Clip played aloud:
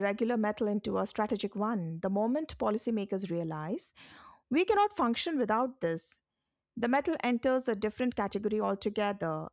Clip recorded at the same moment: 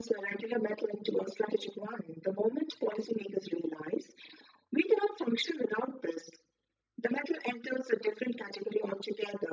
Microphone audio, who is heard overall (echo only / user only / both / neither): echo only